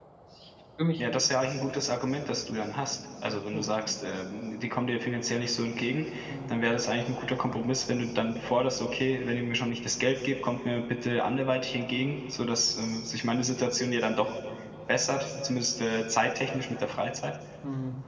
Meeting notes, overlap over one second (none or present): none